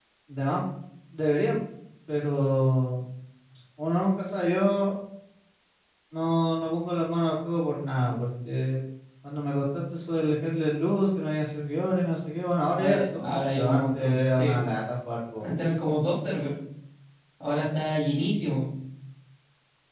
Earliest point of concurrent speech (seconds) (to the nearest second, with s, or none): 13 s